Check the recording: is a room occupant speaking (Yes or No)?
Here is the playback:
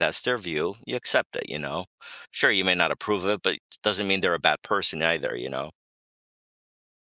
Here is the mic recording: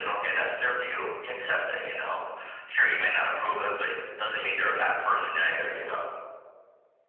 No